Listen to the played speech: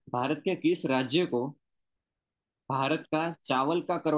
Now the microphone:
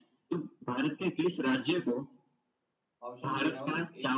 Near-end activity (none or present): present